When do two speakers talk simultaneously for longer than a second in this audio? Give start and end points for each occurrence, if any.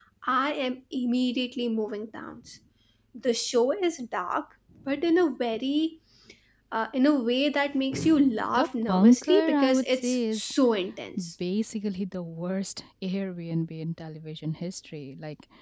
8.5-10.5

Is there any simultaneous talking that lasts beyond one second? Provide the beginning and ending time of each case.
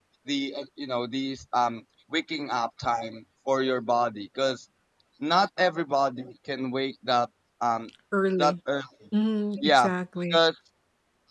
none

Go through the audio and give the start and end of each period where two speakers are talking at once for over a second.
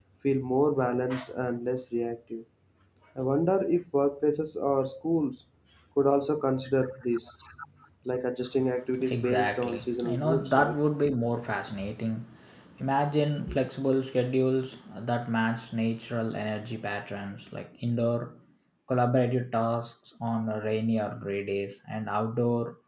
9.1-10.8

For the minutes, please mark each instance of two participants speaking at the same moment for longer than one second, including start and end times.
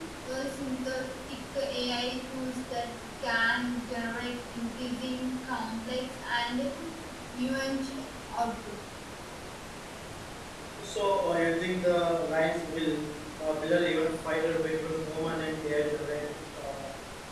none

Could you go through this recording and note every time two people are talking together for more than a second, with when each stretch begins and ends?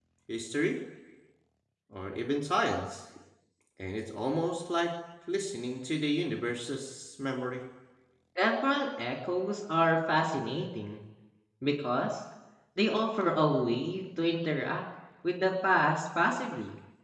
none

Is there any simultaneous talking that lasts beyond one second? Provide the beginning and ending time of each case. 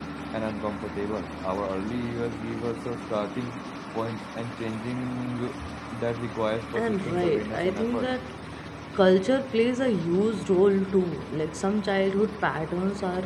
6.8-8.1

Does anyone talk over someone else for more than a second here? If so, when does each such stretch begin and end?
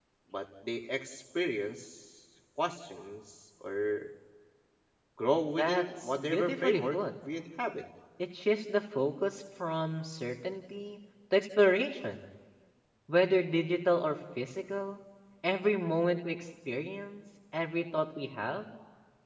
5.6-7.0

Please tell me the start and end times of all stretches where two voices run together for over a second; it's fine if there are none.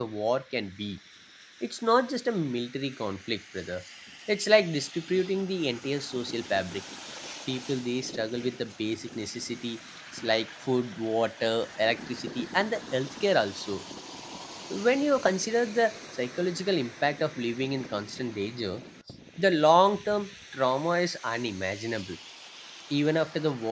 none

